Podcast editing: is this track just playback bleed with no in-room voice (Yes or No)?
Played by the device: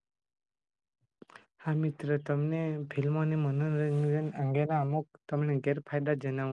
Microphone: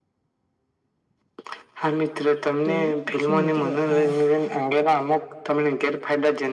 No